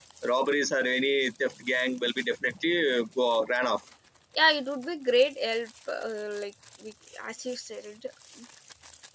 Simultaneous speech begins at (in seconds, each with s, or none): none